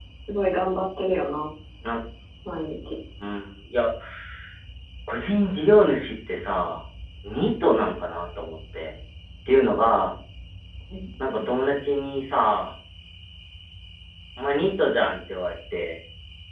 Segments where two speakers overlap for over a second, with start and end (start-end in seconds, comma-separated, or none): none